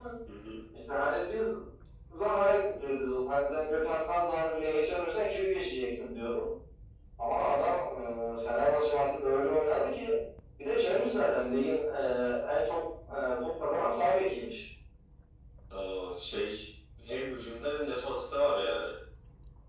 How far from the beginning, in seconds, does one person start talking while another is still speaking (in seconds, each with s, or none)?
none